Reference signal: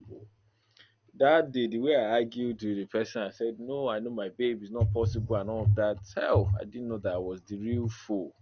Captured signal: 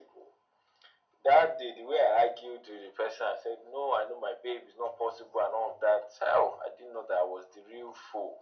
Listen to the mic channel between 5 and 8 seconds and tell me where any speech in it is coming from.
echo only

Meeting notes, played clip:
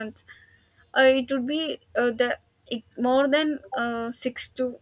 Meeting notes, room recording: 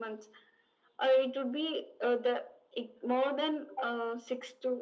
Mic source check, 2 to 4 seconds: echo only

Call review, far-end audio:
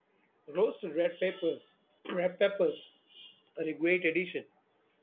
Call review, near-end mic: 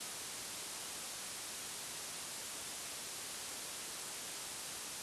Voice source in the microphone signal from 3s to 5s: neither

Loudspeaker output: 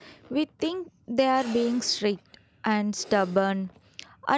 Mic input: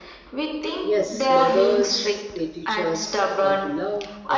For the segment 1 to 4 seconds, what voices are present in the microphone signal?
both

